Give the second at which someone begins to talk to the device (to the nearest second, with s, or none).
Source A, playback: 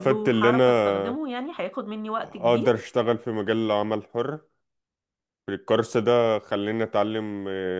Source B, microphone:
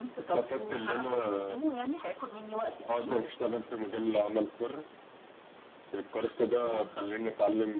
7 s